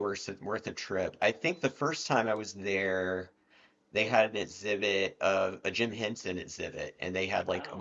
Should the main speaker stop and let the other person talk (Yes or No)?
No